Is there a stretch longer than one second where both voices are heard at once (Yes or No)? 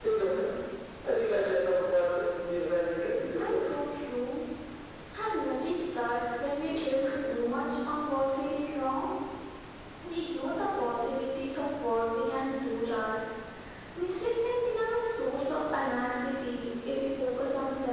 No